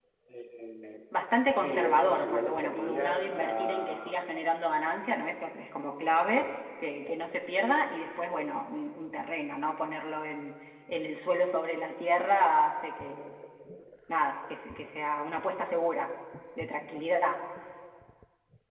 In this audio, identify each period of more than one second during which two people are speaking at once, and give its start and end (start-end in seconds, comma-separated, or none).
1.6-4.1